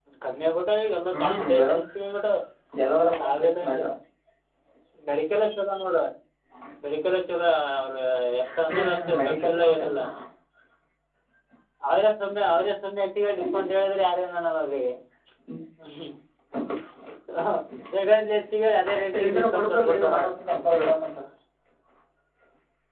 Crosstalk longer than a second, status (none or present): present